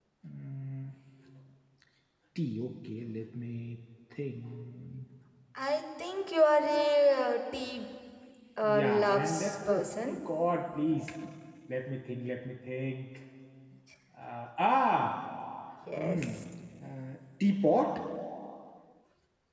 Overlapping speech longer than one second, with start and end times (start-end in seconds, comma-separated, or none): 8.6-10.2